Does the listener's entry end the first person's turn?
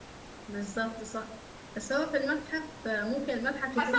Yes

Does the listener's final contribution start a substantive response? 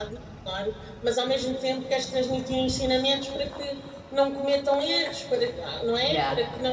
No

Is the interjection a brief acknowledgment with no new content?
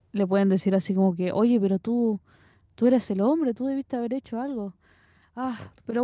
Yes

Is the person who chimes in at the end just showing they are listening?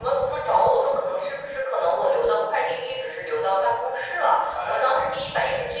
Yes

